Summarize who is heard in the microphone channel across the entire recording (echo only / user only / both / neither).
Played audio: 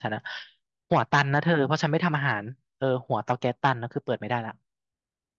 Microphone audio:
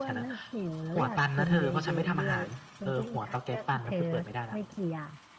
both